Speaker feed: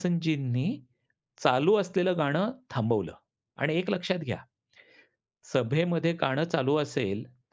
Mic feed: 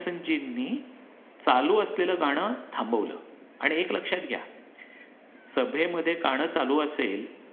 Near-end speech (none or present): none